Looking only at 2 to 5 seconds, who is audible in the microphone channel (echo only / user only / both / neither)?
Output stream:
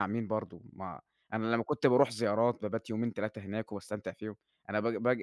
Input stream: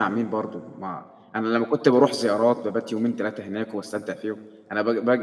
echo only